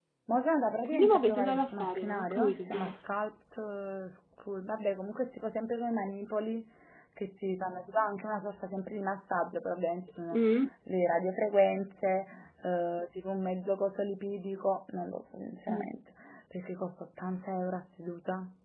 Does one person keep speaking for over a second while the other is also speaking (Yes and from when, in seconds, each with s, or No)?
Yes, from 0.8 s